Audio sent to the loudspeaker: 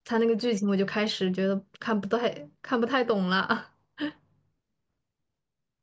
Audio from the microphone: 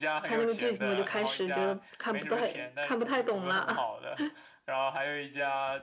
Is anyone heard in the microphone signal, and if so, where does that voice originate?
both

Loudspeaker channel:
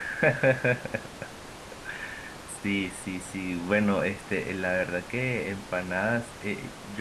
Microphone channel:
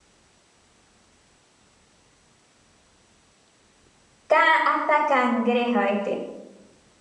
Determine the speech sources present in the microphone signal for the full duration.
user only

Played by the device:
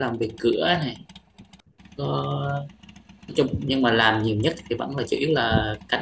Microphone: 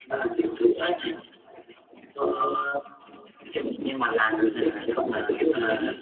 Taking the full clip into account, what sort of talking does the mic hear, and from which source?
both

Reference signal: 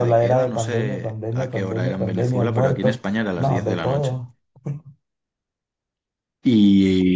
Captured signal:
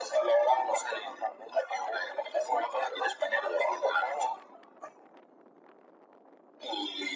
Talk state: echo only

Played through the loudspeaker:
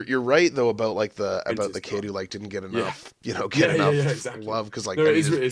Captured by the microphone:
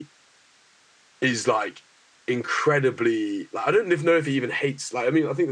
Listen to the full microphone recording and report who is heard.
user only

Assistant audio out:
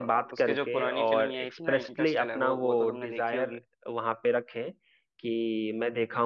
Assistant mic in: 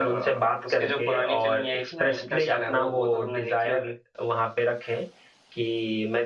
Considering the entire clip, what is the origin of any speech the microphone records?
echo only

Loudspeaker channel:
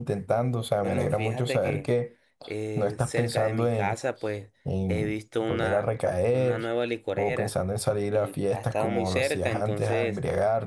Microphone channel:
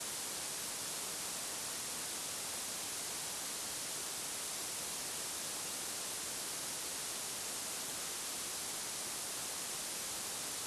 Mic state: neither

